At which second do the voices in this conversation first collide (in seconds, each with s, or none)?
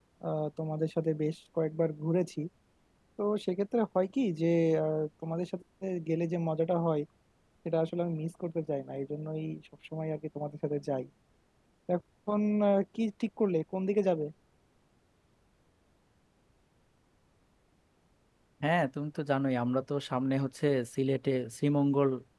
none